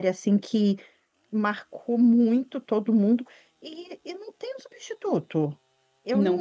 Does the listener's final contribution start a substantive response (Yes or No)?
No